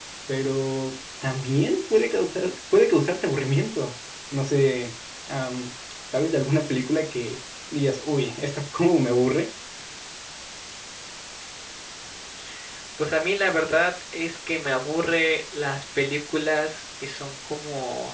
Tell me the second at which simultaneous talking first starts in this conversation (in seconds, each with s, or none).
none